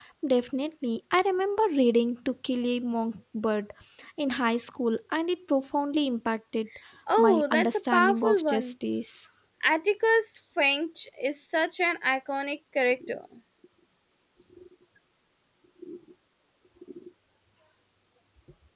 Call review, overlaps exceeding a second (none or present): present